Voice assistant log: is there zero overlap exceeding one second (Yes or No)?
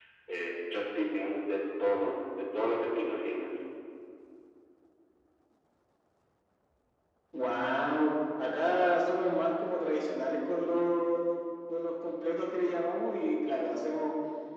Yes